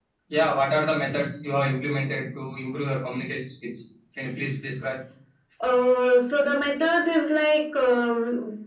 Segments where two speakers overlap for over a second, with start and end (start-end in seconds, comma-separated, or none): none